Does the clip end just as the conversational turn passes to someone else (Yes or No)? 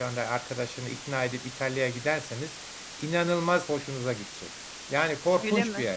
No